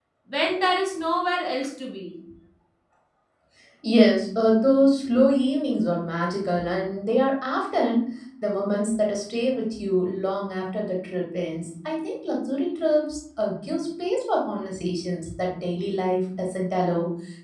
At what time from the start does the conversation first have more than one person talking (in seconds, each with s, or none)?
none